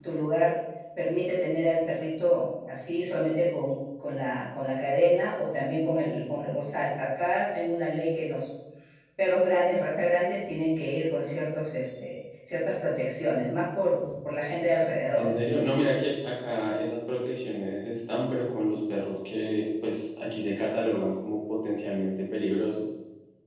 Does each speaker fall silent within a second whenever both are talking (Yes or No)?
Yes